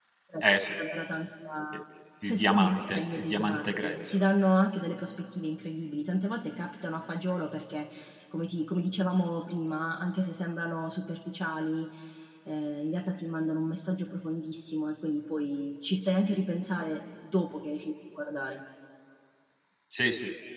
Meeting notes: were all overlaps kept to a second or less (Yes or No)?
No